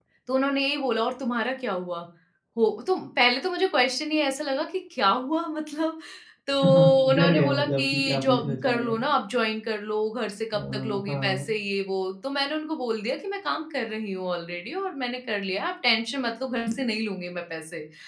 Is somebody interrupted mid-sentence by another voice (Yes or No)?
Yes